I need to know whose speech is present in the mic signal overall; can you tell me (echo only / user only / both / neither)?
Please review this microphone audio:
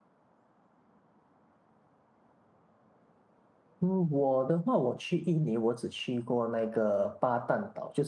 user only